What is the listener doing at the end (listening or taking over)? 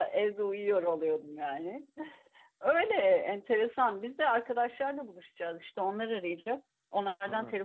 listening